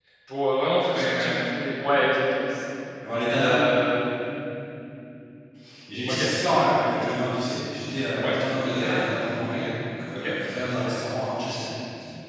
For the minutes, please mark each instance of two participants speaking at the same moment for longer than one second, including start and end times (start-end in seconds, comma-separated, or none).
none